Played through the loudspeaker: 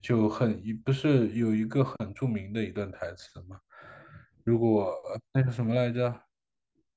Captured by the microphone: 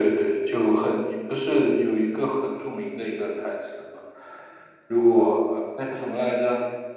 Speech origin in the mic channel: echo only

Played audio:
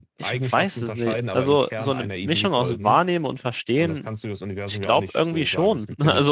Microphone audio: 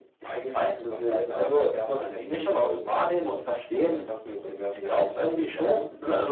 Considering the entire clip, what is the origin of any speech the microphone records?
echo only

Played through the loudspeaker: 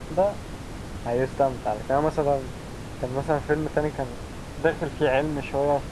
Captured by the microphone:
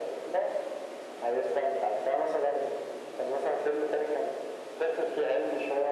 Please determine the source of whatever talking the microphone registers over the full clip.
echo only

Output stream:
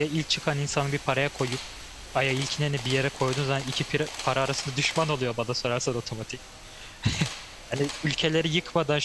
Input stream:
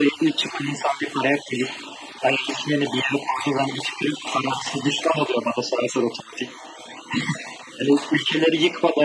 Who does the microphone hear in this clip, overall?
echo only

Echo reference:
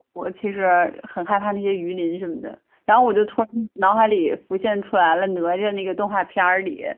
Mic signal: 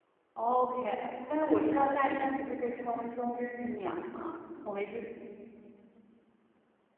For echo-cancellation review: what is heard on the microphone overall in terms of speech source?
user only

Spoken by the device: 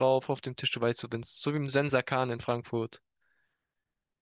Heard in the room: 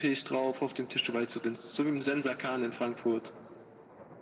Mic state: echo only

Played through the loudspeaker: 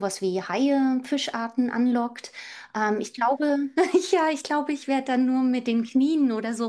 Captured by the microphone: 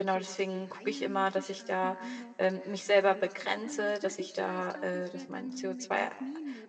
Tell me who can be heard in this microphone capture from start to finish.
both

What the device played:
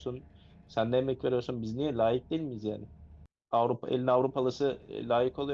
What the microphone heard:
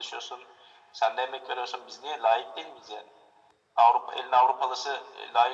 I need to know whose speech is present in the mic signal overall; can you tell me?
echo only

